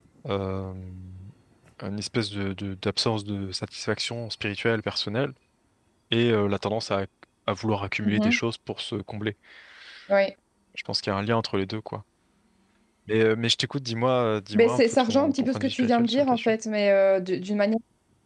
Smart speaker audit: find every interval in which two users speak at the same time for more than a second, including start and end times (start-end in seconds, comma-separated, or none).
14.5-16.5